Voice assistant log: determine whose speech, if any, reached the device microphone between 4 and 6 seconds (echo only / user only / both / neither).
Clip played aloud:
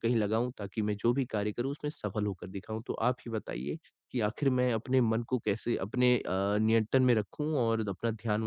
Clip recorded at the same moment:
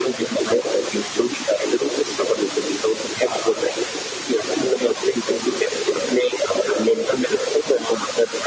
echo only